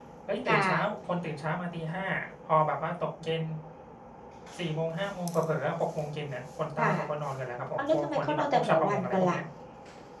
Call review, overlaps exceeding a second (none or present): present